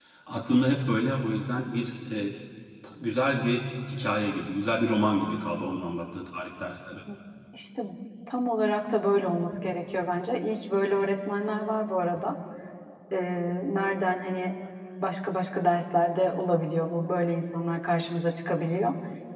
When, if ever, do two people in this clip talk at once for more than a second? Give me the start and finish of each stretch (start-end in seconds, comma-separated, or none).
none